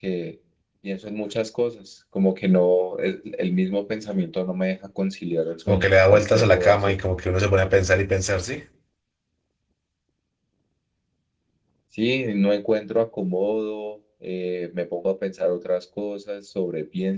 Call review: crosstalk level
present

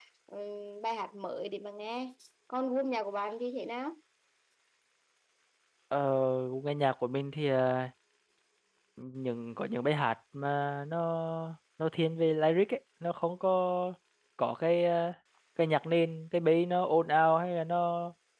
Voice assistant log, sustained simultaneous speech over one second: none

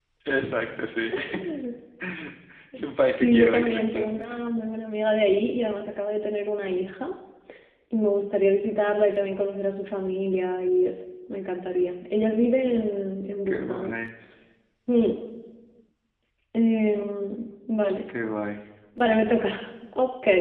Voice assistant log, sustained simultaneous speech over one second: present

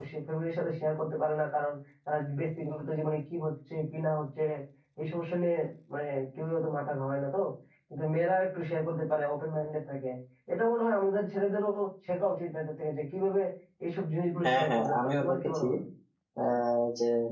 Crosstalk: present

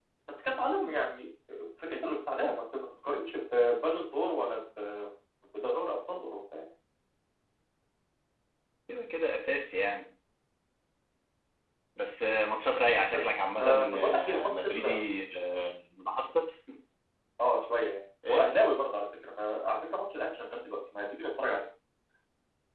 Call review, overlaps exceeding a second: present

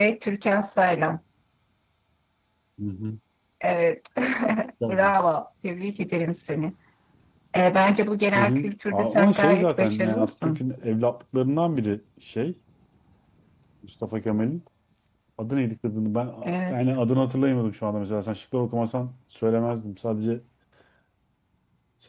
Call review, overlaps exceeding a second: present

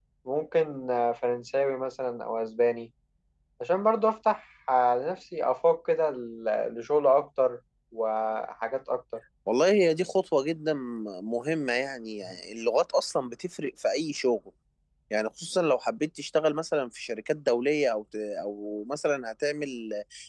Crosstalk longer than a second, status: none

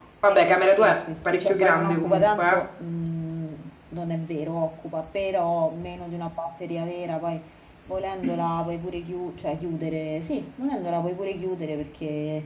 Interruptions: present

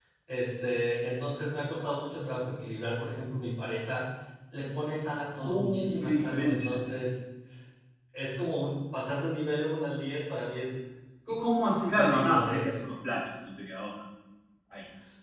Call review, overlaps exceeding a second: present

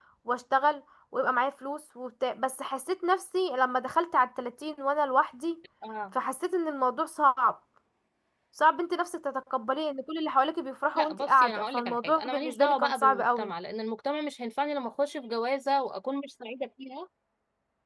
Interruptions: present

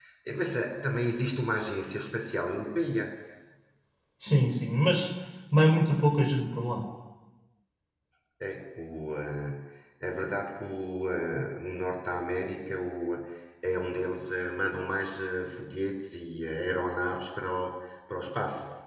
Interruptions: none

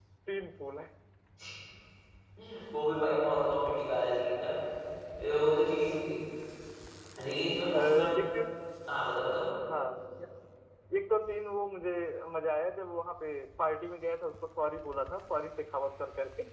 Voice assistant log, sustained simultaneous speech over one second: none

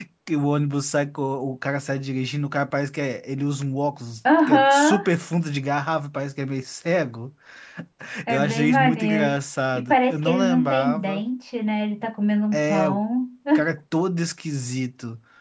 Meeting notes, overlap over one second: present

